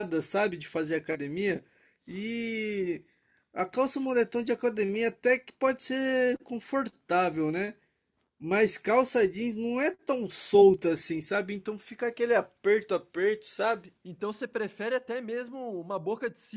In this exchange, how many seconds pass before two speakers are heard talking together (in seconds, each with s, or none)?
none